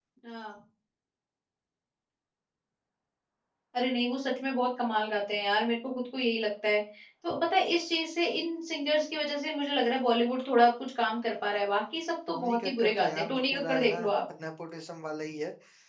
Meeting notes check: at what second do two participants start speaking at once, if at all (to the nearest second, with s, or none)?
12 s